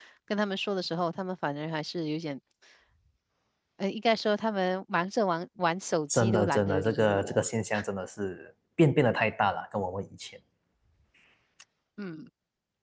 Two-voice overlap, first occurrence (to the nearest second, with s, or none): 6 s